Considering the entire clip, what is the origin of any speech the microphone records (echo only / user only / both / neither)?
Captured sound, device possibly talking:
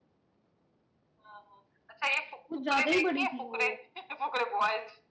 both